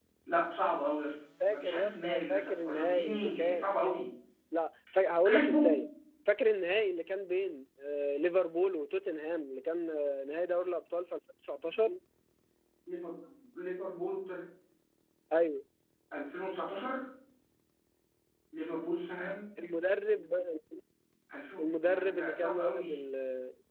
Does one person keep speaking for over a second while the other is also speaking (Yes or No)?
Yes